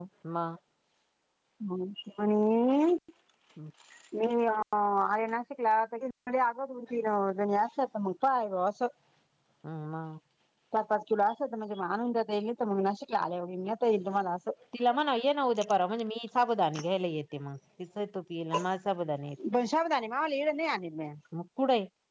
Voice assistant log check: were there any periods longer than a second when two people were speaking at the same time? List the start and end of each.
none

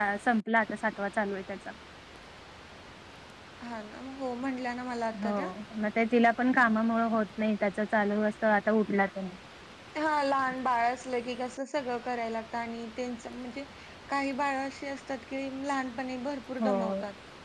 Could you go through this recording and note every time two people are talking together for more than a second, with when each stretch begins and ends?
none

